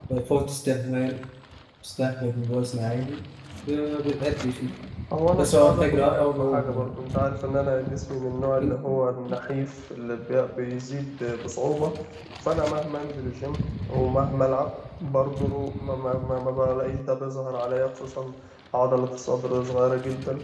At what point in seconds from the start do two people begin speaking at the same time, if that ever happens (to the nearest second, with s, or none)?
5 s